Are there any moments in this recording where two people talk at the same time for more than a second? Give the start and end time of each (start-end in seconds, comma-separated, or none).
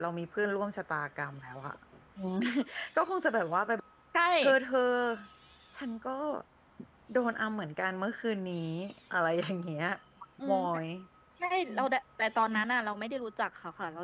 none